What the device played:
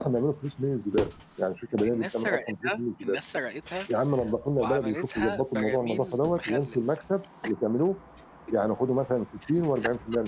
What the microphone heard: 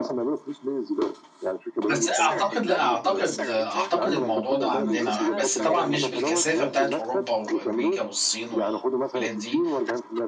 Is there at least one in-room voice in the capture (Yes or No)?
Yes